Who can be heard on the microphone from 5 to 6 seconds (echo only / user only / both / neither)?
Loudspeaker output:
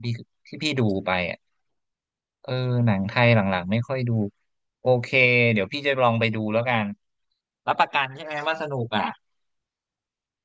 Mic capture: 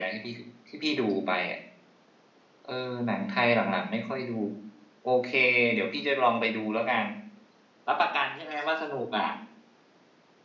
echo only